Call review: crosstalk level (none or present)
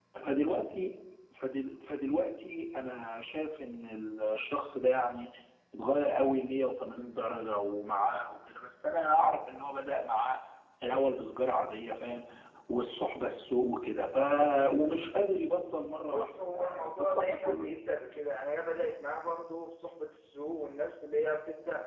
present